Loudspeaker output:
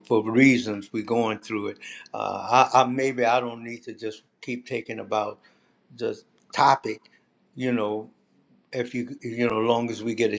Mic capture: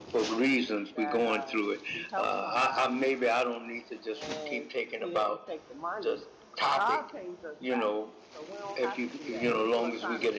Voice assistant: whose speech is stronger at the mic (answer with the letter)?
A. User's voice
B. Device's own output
B